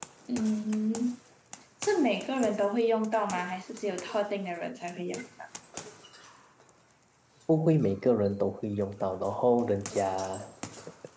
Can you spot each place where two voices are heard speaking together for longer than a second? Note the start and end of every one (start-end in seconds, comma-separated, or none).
none